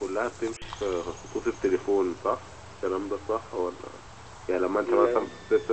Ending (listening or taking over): listening